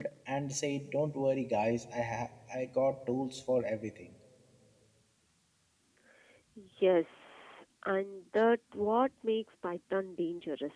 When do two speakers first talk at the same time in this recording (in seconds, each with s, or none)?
none